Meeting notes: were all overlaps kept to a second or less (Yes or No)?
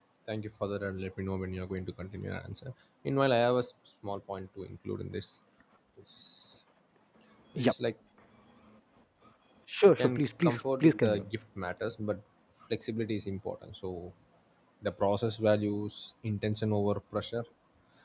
No